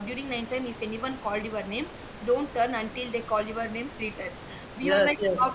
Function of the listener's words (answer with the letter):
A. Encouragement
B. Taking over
A